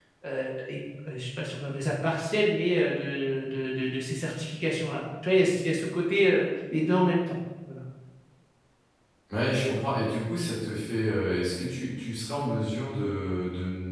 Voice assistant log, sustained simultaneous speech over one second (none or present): none